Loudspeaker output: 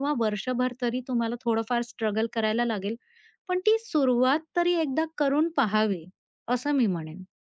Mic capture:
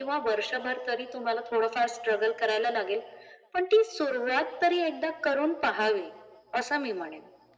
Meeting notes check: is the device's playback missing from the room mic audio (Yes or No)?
No